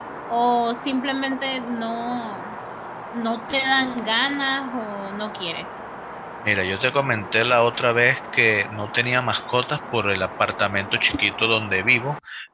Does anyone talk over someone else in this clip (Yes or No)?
No